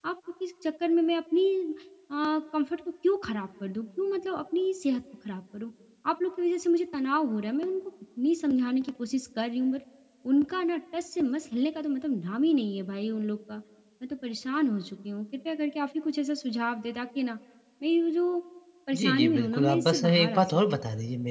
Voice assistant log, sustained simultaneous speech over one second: present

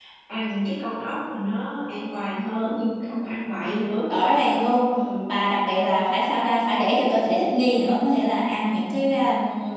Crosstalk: none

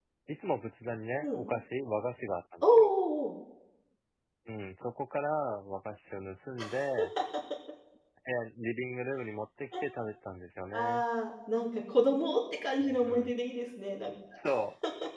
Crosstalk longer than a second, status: none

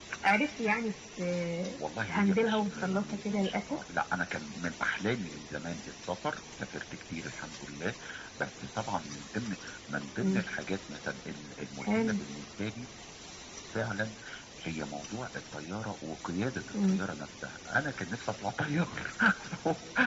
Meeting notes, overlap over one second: present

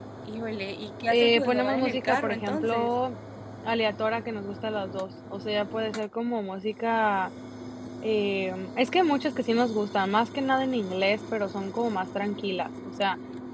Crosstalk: present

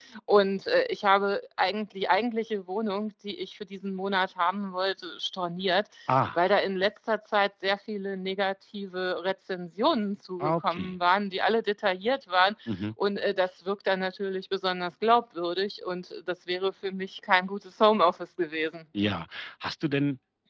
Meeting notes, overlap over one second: none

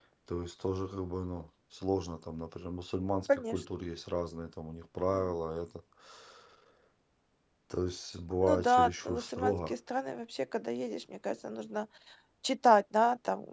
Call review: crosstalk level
present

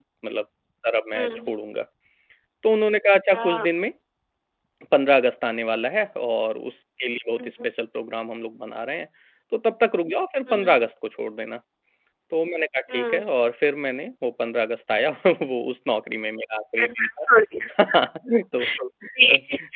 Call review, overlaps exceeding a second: none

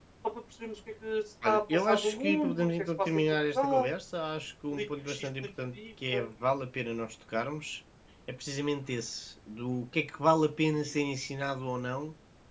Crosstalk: present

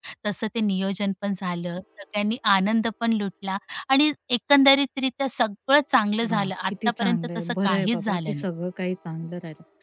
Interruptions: present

